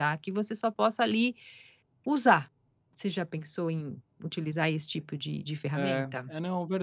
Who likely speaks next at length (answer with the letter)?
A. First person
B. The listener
B